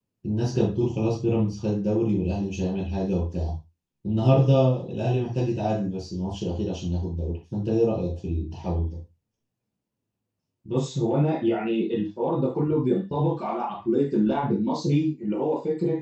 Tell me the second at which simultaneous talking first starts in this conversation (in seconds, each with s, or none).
none